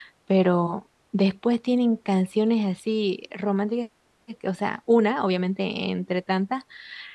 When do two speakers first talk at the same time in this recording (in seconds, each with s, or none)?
none